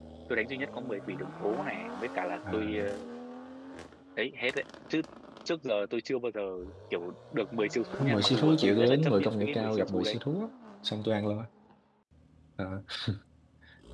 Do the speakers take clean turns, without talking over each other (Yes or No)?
No